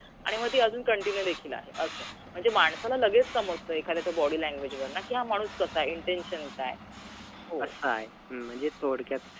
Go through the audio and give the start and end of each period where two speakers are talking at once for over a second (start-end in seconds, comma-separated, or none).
none